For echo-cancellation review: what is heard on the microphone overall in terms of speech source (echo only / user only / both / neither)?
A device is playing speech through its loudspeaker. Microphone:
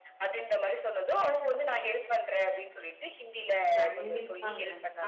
both